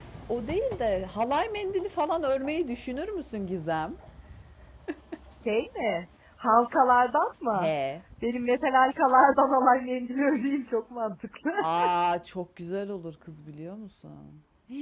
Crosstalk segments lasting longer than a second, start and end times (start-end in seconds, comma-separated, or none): none